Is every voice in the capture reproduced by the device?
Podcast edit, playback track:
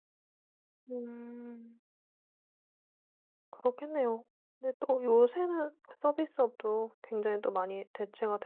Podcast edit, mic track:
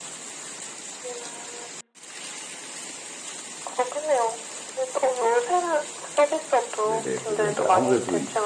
No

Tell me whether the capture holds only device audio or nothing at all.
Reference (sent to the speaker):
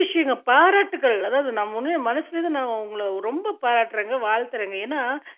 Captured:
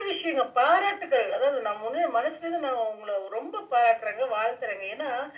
Yes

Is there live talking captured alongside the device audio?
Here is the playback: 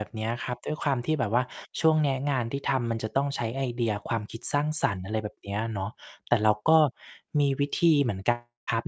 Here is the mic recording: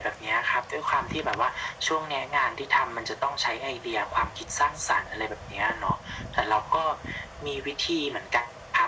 No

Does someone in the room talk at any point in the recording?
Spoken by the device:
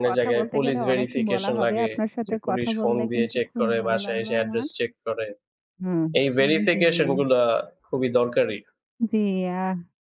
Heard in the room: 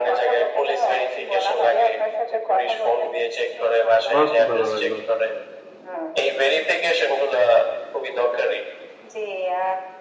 Yes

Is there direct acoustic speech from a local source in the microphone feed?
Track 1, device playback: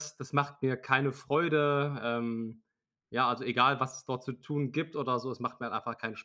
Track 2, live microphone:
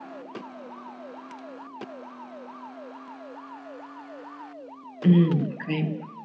Yes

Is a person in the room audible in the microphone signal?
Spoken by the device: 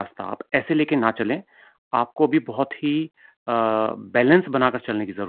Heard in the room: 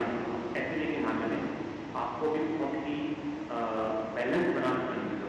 No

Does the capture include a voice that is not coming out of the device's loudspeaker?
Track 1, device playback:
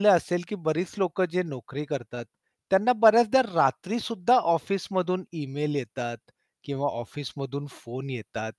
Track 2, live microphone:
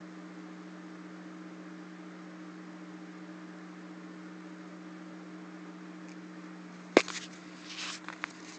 No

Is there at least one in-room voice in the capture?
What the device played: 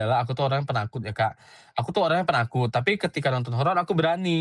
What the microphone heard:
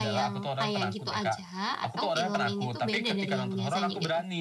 Yes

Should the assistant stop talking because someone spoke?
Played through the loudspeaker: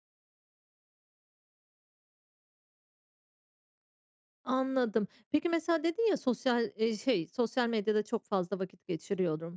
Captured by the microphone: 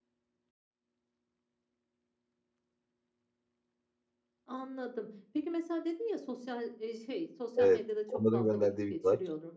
Yes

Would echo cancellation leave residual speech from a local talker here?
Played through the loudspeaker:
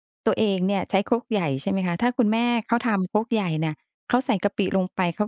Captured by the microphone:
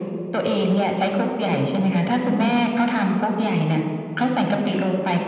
No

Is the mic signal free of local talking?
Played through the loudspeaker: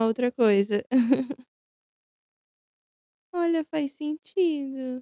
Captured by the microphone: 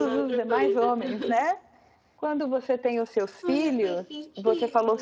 No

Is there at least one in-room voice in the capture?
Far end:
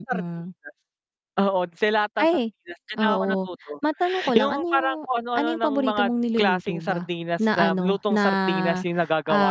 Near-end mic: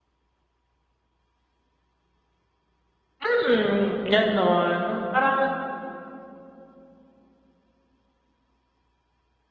Yes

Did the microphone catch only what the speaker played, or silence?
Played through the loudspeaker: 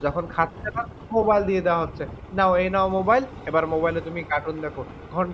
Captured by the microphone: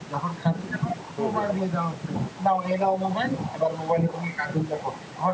No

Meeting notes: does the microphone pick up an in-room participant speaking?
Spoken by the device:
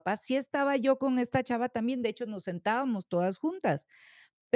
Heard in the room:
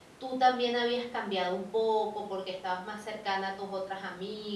Yes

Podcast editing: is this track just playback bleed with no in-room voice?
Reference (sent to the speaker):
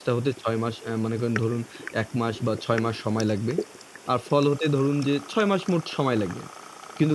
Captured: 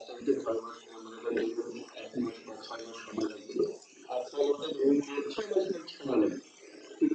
Yes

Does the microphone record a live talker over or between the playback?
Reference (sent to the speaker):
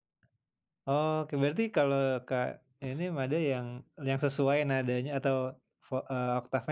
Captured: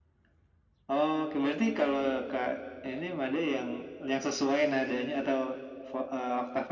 No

